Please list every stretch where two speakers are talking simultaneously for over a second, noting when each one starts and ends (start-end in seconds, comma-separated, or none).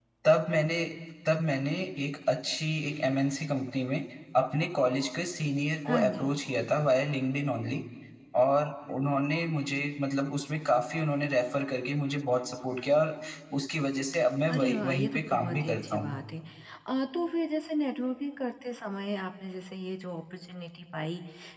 14.5-16.2